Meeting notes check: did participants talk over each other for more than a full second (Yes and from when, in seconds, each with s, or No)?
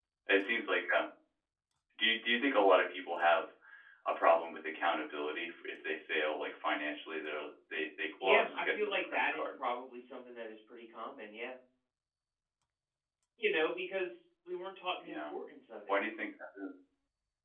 Yes, from 8.2 s